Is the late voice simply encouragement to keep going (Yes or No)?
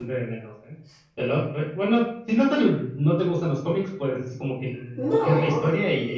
No